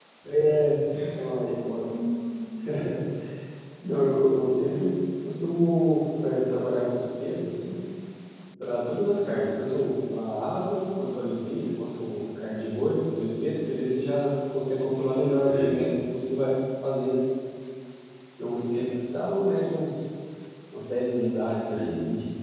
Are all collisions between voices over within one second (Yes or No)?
Yes